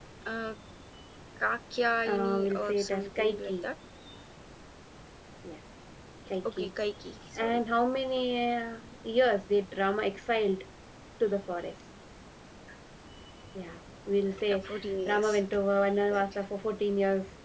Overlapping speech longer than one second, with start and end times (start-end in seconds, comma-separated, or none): 2.1-3.7